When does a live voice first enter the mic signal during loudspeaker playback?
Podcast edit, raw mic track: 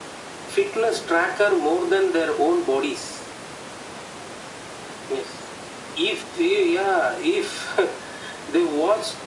none

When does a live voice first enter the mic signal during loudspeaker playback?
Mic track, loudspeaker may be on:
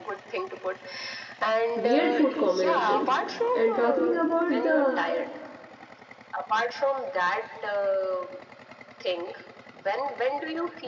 1.7 s

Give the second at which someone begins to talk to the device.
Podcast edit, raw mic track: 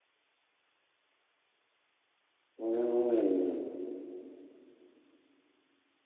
2.6 s

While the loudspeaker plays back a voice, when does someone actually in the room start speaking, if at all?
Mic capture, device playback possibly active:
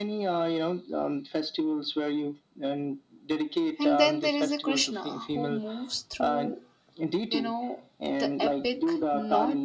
3.8 s

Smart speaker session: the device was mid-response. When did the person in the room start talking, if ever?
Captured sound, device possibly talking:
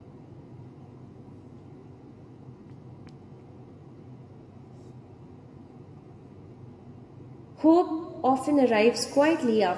7.6 s

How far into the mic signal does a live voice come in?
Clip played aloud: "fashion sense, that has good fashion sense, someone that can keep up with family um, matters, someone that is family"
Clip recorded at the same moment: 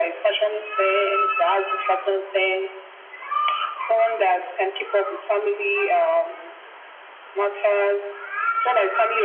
none

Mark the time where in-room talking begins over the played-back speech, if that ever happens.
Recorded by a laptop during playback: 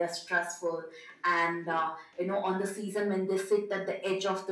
none

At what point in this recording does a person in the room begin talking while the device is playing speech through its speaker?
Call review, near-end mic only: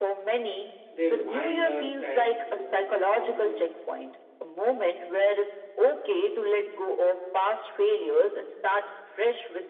0.9 s

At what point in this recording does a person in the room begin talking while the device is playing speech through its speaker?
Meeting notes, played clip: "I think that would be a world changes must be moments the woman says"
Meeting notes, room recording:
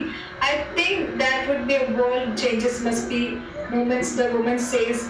none

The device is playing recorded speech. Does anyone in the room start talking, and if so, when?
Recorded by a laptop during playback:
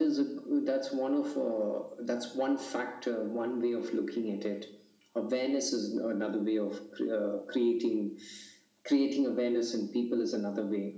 none

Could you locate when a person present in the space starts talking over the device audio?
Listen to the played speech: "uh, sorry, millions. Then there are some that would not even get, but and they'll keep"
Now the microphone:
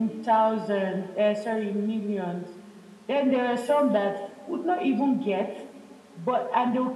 none

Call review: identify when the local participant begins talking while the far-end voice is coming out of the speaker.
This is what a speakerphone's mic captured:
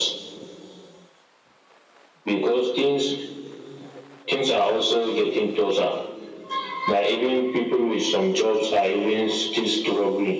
none

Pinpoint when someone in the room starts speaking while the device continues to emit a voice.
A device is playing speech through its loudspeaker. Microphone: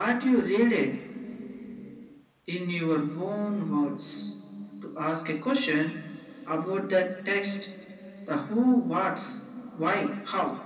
none

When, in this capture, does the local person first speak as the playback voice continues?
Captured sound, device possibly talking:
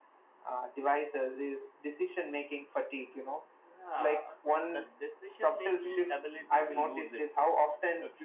none

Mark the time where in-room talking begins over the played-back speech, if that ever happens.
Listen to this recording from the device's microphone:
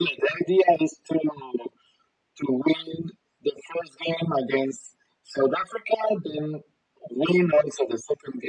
none

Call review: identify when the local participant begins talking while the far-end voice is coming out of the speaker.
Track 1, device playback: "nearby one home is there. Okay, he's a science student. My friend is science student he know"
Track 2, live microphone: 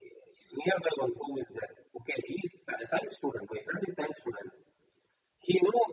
none

